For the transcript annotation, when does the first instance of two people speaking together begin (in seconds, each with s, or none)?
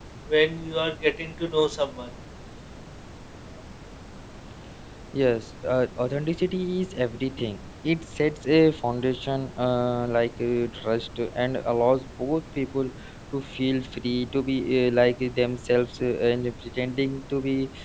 none